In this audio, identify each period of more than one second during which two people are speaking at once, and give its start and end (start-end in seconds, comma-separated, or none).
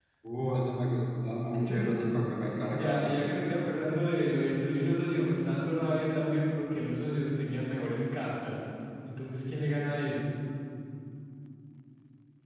none